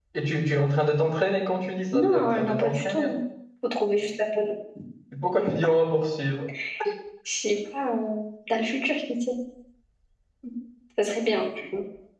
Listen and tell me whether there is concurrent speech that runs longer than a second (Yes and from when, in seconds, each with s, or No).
Yes, from 1.9 s